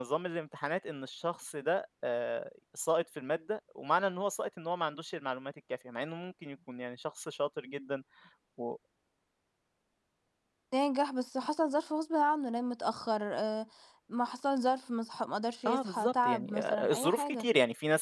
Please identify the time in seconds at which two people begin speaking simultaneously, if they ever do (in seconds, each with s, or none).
15.7 s